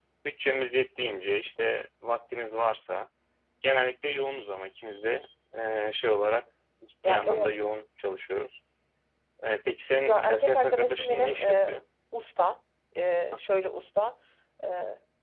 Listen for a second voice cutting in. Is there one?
Yes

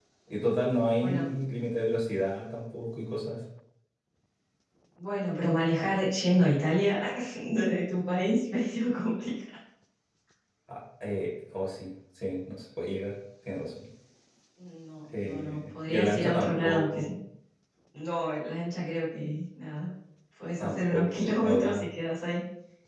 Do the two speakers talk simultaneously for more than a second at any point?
Yes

